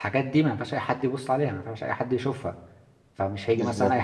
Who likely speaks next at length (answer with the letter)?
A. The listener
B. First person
B